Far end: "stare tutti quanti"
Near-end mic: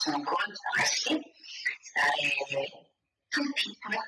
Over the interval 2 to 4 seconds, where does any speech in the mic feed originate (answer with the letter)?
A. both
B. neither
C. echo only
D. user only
C